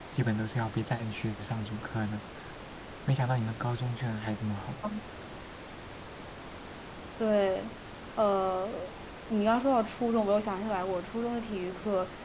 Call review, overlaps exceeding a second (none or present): none